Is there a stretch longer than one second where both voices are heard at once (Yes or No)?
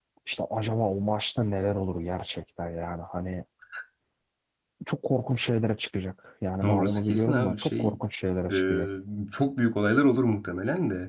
Yes